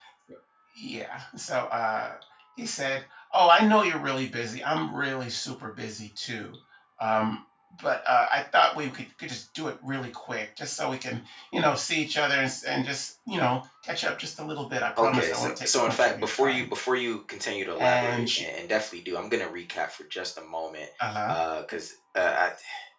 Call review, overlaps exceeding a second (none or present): present